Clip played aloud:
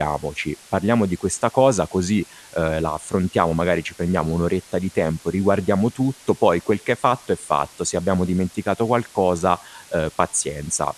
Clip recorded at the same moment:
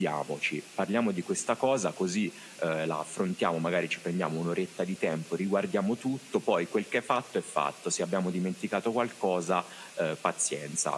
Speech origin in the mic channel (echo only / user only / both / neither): echo only